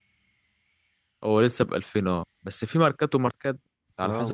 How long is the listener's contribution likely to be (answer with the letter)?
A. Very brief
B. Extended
B